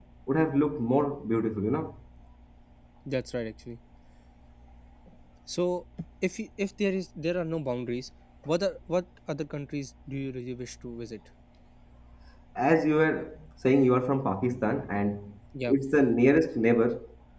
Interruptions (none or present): none